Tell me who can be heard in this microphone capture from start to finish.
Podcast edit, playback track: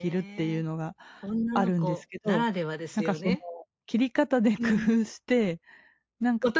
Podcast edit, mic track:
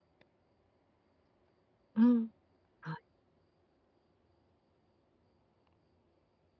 user only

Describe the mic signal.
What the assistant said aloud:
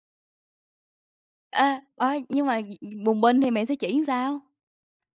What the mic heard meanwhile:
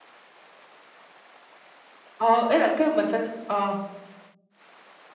user only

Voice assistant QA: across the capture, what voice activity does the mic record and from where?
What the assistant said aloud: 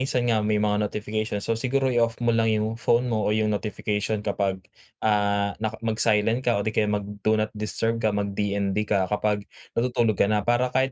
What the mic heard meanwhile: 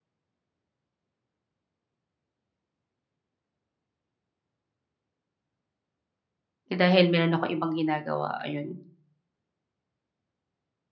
user only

